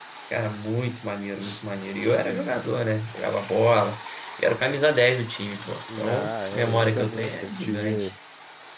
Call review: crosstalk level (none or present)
present